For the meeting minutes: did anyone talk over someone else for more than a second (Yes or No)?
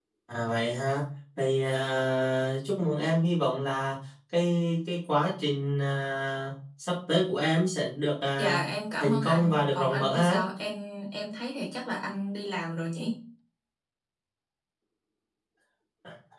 Yes